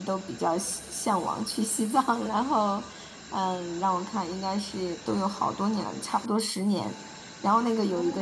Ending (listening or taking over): listening